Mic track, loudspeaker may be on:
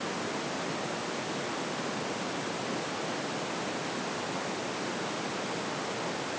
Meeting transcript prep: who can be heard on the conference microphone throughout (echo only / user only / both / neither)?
neither